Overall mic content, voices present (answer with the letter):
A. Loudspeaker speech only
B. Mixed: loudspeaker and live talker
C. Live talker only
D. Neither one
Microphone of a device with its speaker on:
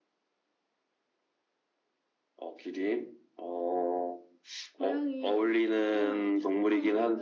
B